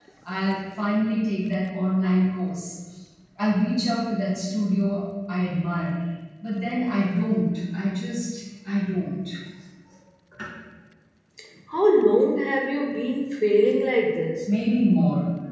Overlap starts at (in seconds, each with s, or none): none